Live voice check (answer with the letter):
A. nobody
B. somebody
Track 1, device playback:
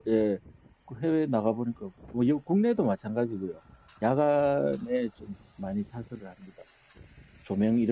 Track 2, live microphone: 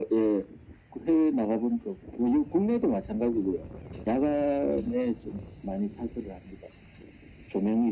A